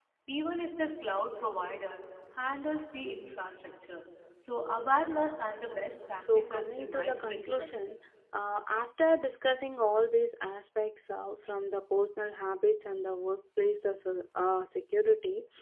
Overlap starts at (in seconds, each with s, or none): 6.2 s